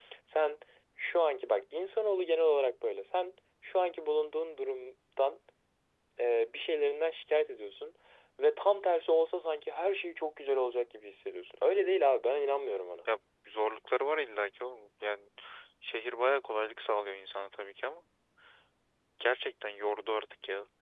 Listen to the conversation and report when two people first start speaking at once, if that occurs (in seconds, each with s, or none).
none